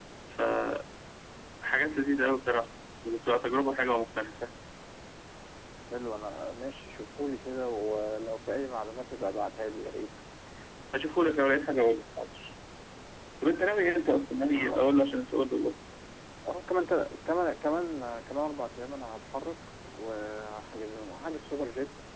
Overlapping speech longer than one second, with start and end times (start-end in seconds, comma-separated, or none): none